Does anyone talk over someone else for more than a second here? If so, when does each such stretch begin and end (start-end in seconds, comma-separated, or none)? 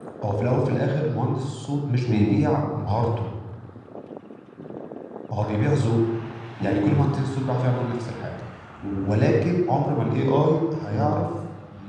none